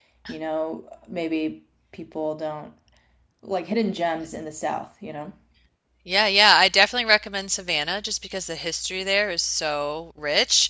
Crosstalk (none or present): none